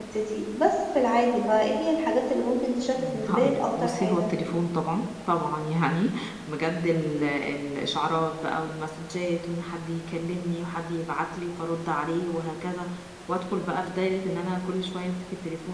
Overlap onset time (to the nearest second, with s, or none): 3 s